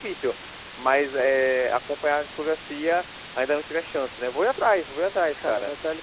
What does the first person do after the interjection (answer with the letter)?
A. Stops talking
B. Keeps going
A